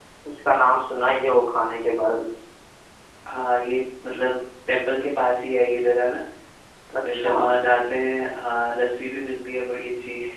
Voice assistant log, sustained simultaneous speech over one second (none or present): none